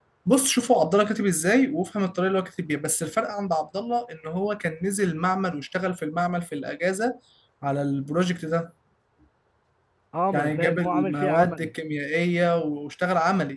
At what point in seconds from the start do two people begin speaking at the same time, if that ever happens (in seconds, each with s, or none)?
10.3 s